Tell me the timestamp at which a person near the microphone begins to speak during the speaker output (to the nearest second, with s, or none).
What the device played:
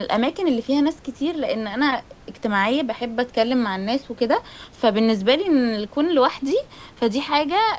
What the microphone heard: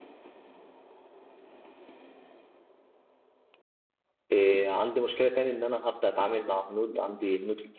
4 s